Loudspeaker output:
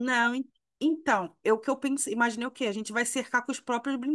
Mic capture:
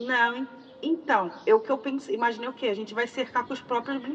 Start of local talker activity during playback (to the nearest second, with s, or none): none